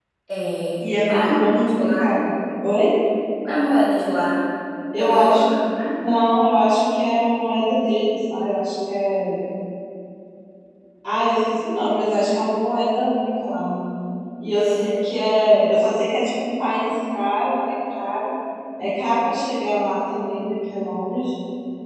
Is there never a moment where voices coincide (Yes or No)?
No